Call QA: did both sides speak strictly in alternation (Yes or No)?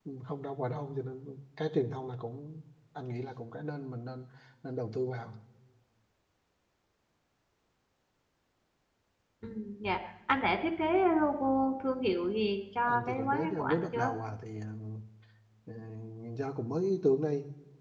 No